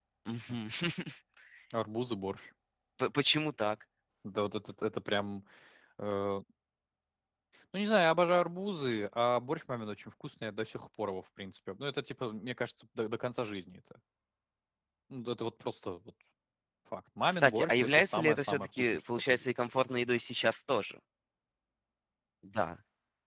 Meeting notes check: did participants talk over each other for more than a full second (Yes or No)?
Yes